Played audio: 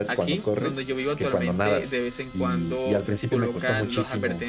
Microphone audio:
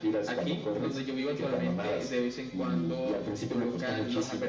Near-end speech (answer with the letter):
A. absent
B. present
A